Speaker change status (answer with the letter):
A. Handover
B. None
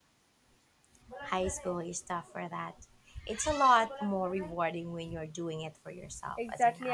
A